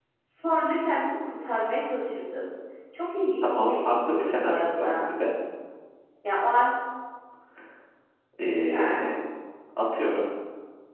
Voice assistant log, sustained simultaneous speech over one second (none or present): present